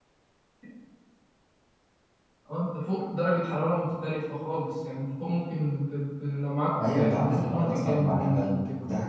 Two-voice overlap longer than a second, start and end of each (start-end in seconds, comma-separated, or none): 6.9-8.6